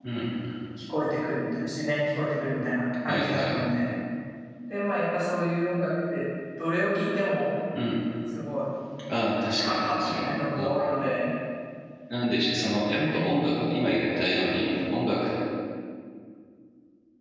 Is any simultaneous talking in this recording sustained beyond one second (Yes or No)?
Yes